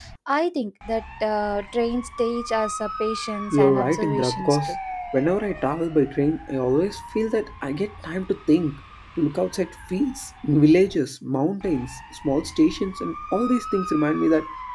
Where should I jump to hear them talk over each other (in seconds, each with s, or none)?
3.5 s